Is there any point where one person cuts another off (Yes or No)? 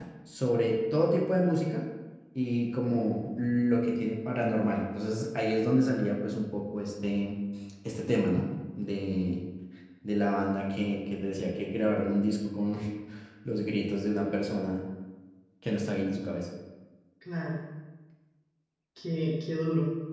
No